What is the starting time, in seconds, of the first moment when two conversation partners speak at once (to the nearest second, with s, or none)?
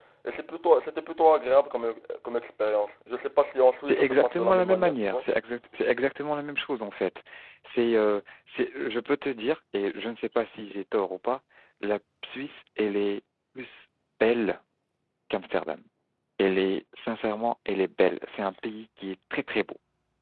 4 s